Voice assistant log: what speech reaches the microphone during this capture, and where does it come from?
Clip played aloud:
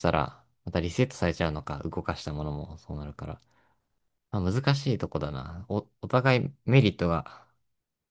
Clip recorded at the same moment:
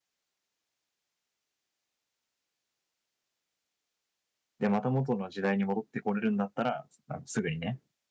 user only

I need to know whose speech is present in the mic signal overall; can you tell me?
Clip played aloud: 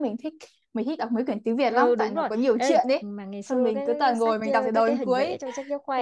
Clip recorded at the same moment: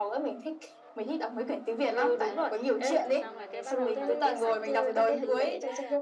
both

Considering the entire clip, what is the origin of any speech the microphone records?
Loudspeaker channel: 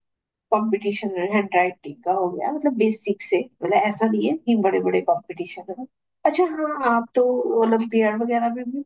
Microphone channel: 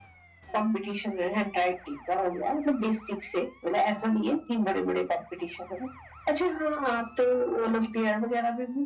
echo only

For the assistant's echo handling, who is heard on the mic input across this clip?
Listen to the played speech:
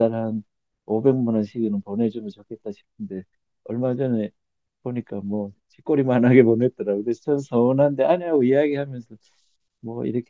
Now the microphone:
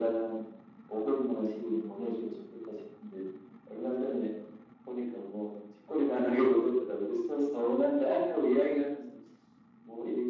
echo only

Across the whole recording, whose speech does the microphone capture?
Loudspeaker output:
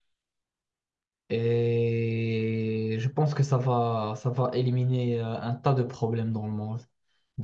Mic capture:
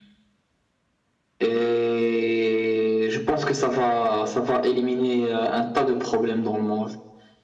echo only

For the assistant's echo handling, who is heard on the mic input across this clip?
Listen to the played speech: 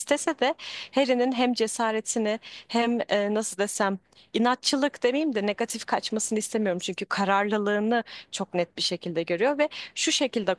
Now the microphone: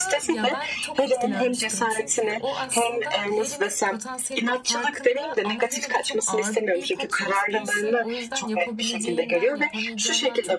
both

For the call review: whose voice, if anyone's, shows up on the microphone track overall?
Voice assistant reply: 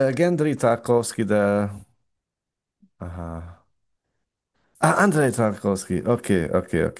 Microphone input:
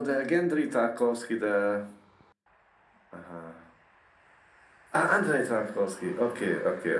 echo only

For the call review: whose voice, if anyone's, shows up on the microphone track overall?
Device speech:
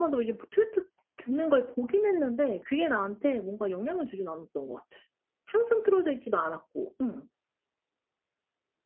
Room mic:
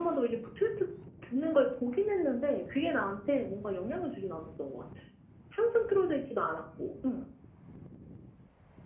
echo only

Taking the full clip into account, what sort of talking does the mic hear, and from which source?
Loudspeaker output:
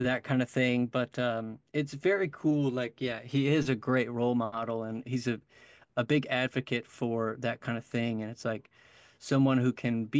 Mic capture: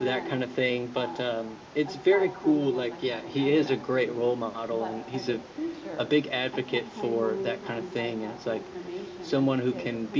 both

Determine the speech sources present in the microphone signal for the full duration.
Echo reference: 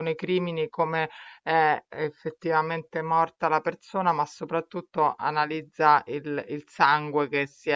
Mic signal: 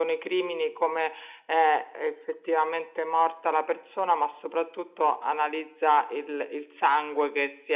echo only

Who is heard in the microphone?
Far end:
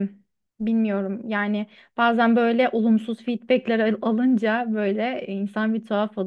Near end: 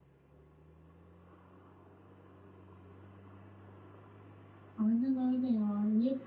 user only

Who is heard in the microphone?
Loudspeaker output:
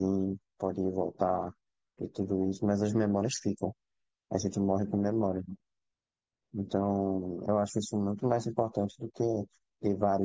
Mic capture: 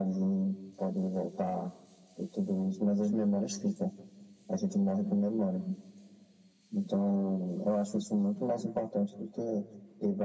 echo only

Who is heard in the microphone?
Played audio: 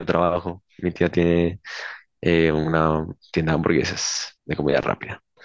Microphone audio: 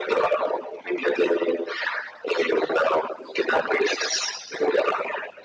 echo only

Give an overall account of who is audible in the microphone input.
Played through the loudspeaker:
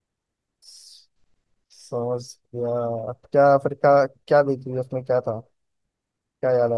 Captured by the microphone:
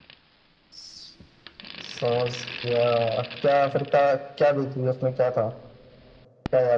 echo only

